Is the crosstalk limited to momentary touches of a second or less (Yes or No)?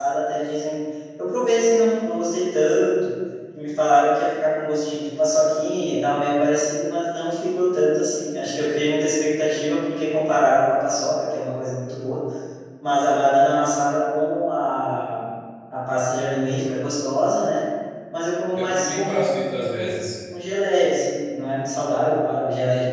No